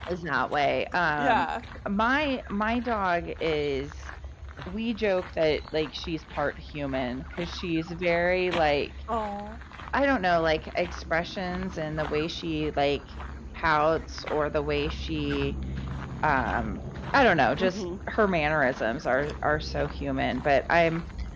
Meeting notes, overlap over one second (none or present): none